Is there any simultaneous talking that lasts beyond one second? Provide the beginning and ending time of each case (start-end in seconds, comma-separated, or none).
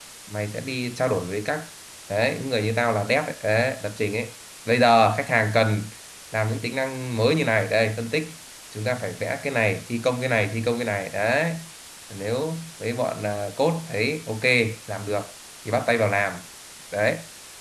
none